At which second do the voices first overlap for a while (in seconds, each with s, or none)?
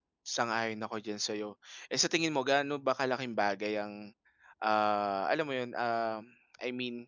none